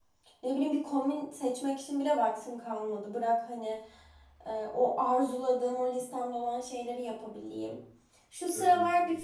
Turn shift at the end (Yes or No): No